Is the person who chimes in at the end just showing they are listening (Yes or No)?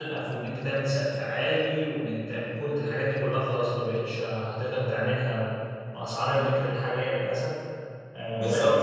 No